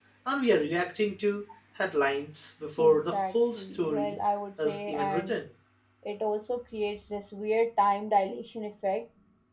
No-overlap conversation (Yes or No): No